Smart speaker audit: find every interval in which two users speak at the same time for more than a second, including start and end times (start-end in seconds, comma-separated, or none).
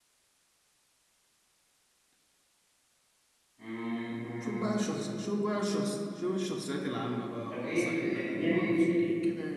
7.5-8.9